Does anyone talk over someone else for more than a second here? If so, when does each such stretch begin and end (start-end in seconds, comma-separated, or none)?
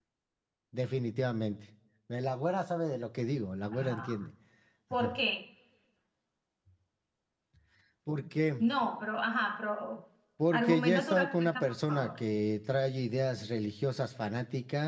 10.5-12.2